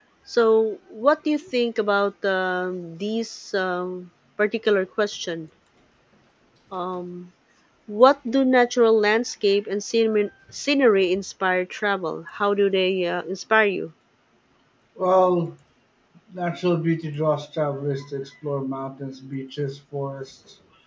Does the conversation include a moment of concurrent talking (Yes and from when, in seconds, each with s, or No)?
No